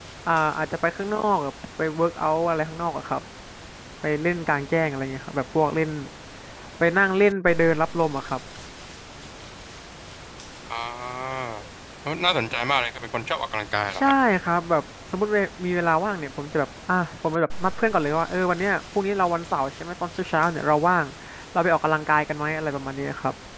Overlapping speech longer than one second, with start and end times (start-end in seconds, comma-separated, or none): none